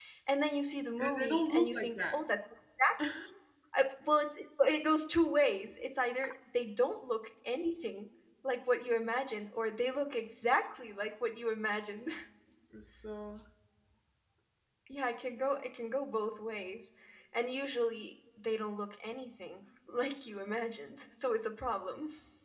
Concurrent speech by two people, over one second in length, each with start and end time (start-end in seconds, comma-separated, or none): 1.0-2.2